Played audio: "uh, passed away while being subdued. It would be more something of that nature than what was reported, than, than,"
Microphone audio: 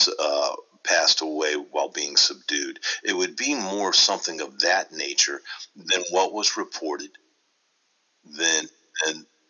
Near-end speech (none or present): none